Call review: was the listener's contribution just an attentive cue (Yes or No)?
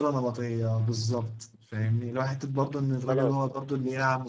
Yes